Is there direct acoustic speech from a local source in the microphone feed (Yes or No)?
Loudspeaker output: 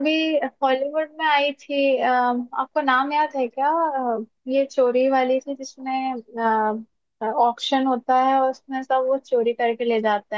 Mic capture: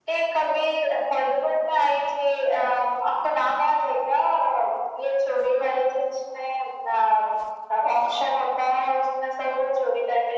No